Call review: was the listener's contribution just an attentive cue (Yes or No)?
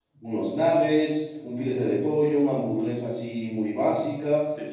Yes